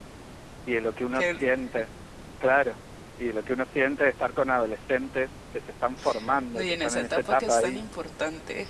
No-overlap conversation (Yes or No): No